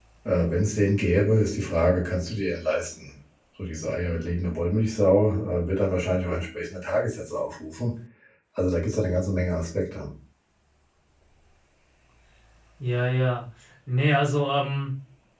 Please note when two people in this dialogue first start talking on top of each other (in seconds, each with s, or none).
none